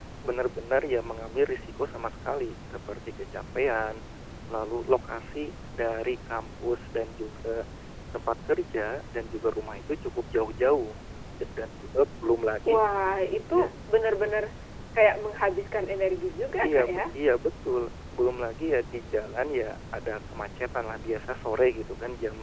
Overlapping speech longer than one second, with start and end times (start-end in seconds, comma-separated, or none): none